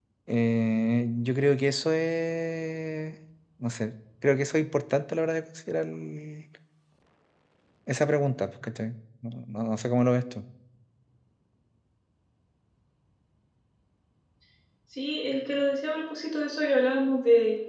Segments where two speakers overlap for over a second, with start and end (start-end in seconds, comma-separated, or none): none